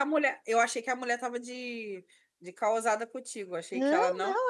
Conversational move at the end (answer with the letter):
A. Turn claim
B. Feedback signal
A